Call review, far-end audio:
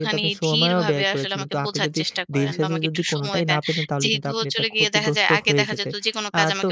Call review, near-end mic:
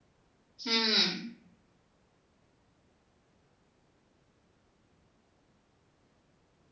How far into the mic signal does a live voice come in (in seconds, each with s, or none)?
0.6 s